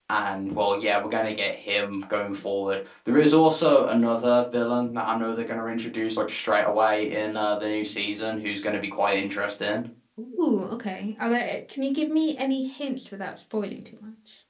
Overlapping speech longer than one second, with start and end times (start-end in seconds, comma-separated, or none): none